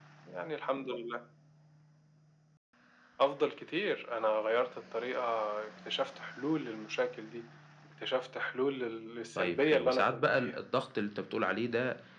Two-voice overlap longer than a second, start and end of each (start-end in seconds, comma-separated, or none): 9.4-10.6